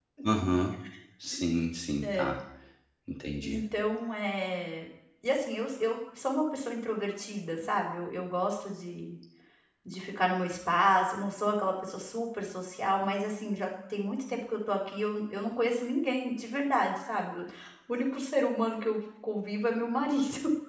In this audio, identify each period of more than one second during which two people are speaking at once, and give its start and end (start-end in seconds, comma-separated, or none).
none